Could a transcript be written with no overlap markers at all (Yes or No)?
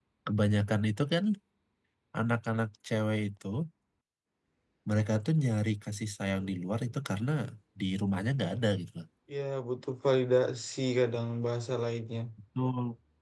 Yes